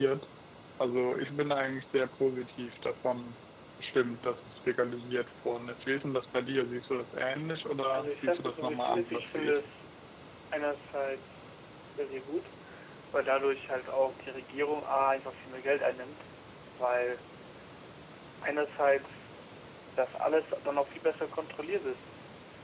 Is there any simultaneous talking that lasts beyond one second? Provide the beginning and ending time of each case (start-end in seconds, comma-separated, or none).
7.9-9.6